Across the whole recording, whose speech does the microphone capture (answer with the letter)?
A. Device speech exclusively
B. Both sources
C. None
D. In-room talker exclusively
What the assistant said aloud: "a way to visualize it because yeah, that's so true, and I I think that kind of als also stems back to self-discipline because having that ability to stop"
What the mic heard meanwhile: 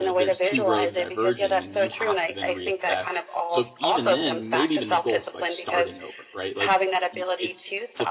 B